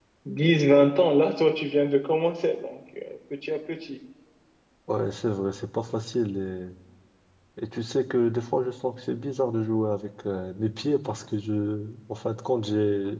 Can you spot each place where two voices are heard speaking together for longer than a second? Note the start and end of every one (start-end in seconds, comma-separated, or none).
none